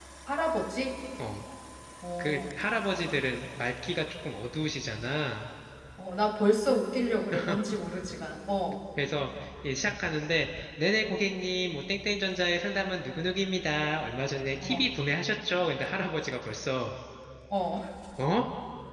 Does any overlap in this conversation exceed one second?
No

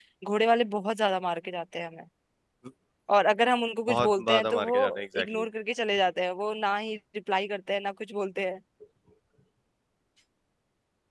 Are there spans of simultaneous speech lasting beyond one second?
Yes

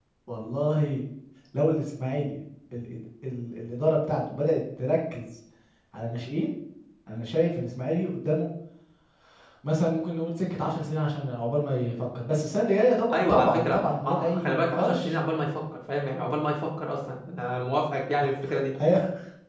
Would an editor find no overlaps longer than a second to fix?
No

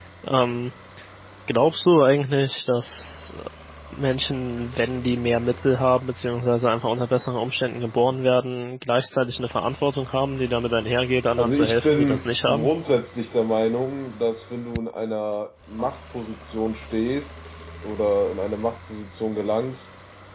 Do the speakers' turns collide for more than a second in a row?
Yes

